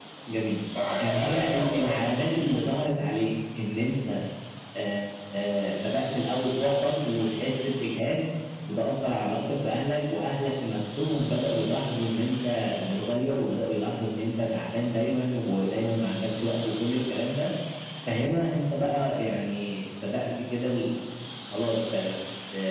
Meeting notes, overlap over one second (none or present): present